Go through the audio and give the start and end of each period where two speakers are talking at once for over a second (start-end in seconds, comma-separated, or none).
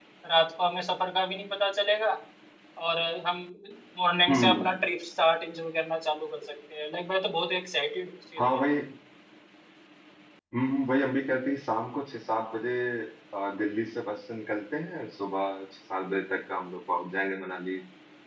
none